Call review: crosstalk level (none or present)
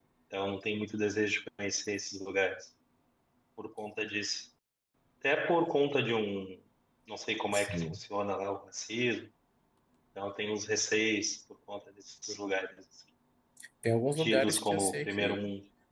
present